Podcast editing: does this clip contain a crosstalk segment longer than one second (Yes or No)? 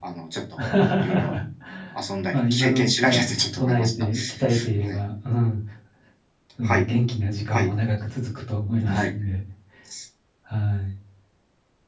Yes